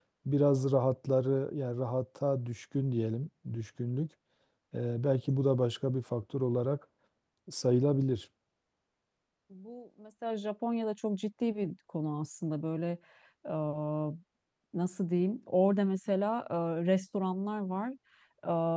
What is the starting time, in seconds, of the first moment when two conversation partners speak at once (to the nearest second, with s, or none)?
none